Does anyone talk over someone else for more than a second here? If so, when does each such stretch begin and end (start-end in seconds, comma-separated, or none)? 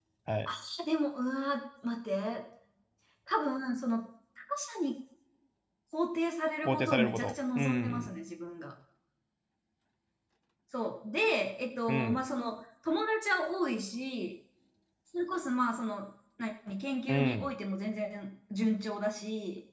6.6-8.1